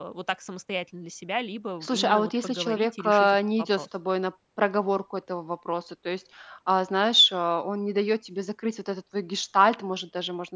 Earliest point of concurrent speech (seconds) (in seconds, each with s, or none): 1.8 s